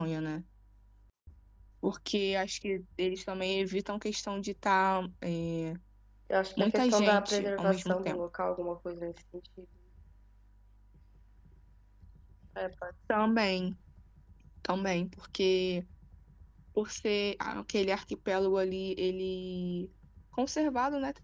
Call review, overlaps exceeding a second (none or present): present